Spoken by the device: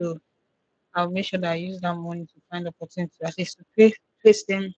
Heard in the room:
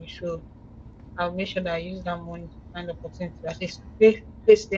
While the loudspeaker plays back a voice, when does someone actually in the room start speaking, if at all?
none

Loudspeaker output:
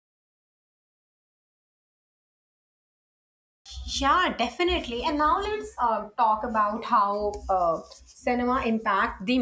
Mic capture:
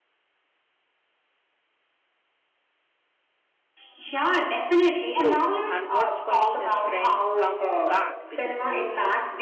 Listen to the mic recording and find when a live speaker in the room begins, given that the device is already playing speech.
5.2 s

